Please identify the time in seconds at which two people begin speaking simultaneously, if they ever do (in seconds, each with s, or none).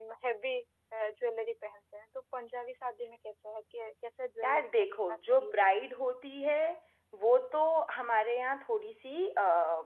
4.4 s